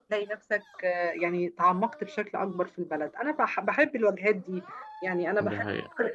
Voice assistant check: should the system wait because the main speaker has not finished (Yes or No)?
Yes